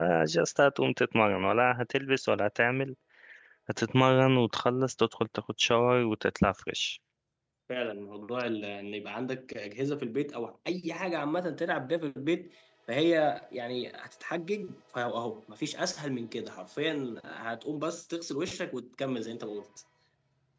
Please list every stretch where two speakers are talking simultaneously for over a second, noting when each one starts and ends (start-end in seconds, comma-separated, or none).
none